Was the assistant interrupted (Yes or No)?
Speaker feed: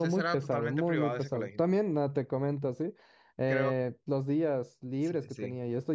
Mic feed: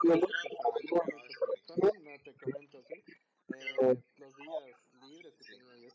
No